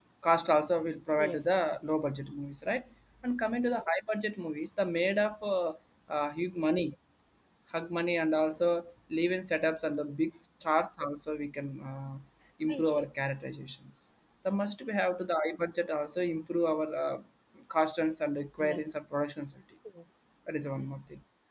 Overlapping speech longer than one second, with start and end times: none

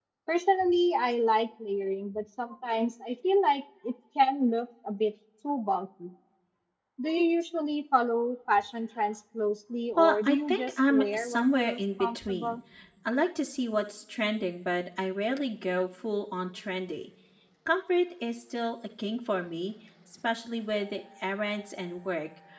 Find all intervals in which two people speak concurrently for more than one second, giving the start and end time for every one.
10.0-12.6

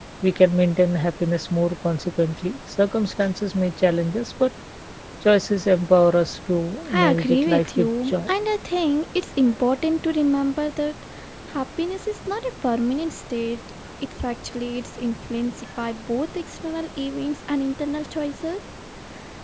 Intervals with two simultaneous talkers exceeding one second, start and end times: 7.1-8.3

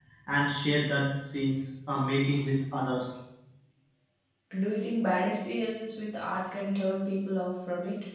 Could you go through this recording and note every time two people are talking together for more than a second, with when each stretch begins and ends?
none

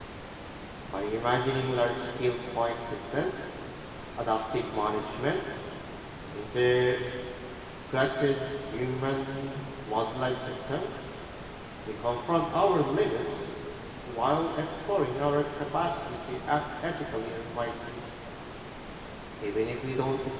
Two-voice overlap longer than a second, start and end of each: none

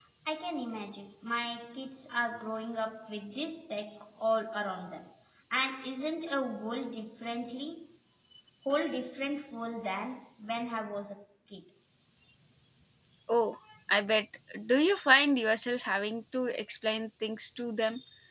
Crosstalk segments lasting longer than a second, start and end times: none

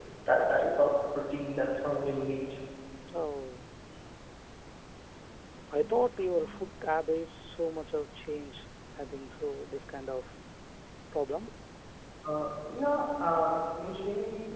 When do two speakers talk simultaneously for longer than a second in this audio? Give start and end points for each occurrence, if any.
none

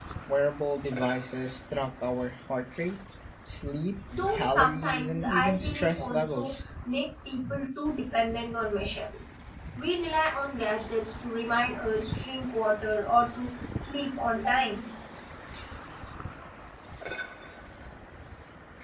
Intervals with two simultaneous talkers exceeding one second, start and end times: 4.3-6.6

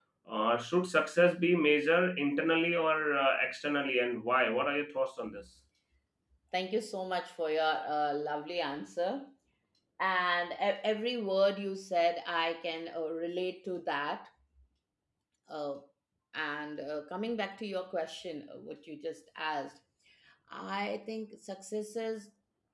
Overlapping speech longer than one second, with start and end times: none

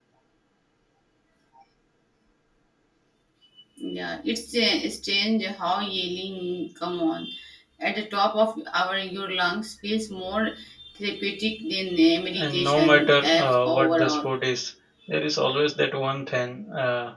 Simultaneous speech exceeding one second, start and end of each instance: 12.4-14.3

